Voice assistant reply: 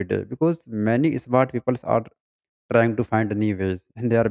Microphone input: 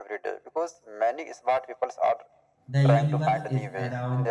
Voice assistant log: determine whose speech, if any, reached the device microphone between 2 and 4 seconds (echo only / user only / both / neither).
both